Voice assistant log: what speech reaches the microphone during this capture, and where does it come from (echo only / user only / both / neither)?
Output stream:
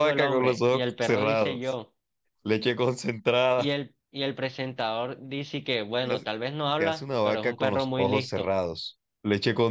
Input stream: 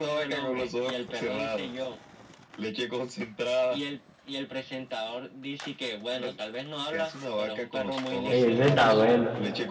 both